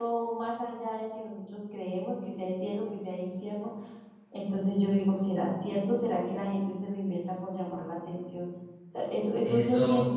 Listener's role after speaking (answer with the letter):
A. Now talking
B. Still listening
A